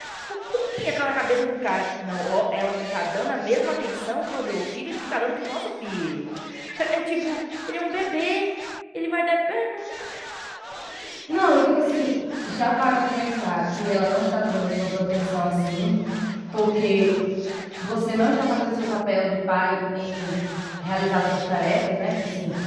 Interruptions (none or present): none